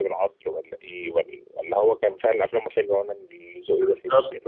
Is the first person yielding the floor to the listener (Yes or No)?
Yes